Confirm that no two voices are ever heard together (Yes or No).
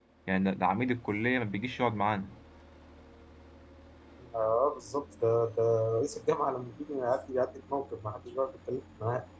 Yes